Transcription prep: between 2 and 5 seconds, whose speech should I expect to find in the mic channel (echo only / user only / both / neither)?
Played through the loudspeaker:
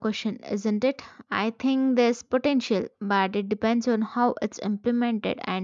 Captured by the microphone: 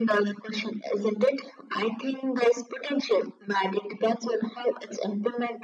echo only